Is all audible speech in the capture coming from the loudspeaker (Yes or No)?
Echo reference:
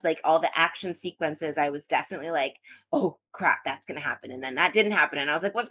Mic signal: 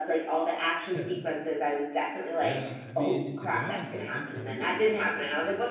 No